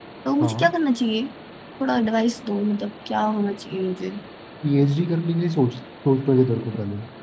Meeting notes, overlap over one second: none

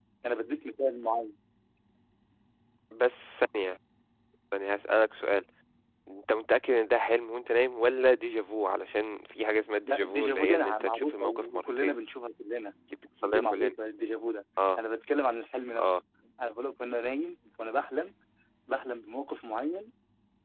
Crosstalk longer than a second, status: present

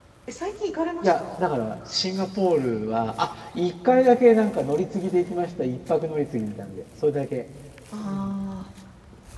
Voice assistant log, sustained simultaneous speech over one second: none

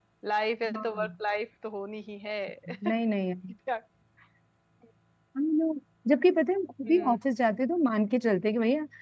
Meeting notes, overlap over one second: none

